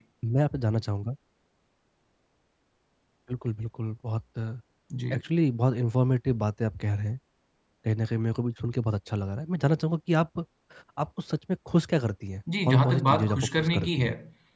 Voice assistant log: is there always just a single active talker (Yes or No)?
No